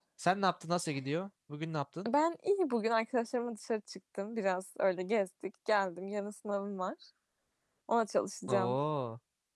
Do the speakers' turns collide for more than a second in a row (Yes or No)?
No